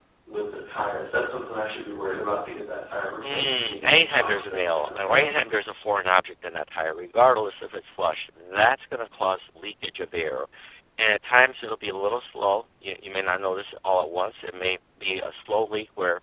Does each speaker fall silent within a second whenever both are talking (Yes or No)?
No